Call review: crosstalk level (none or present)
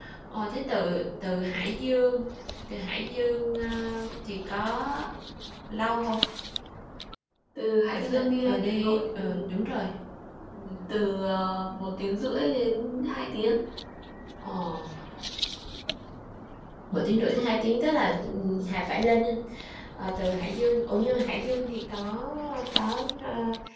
present